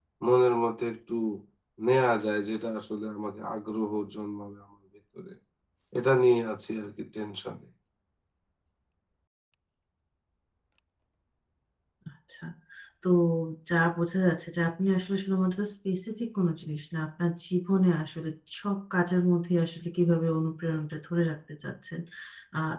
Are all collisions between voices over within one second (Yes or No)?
Yes